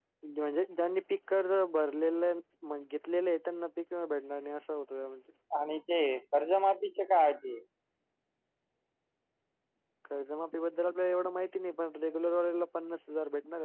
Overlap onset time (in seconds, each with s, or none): none